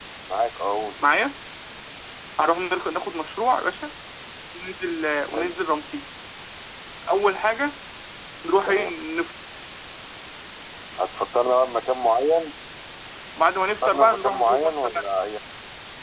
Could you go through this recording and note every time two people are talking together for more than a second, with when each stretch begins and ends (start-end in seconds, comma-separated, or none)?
13.8-15.2